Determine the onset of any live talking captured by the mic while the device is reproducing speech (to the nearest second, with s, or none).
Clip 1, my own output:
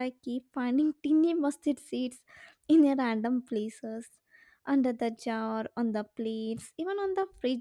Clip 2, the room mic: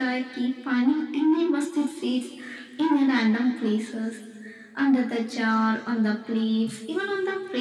none